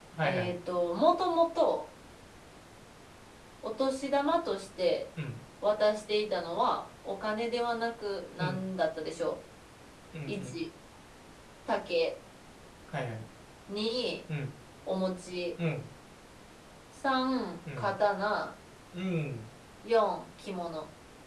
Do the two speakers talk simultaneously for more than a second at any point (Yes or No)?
No